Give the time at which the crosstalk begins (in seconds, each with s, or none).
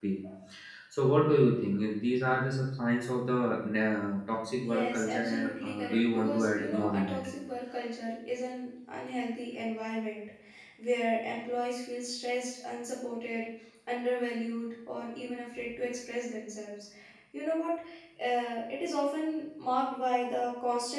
4.6 s